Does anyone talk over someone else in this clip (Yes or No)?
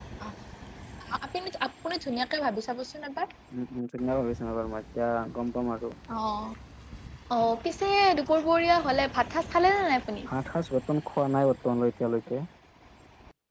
No